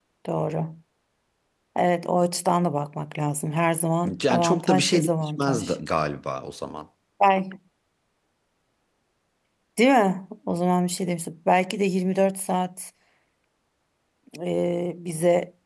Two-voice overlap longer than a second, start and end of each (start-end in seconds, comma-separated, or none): 4.3-5.8